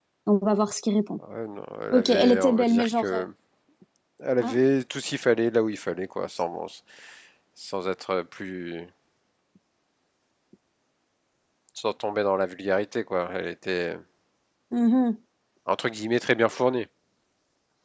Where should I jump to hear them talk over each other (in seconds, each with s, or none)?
1.9 s